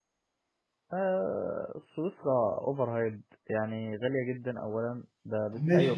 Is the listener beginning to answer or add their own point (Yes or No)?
No